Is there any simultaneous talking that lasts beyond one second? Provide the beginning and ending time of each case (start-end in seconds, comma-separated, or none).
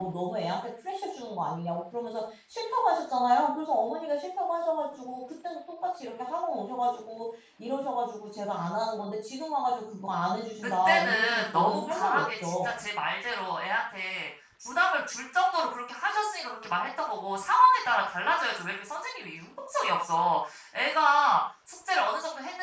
10.8-12.7